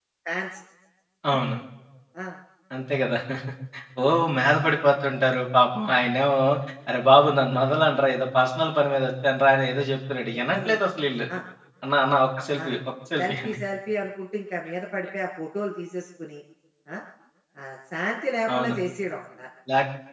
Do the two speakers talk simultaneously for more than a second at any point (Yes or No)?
No